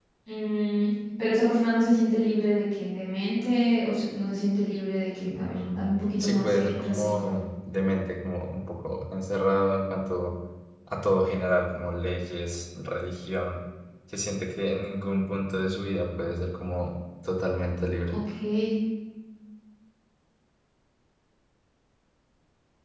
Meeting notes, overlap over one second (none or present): present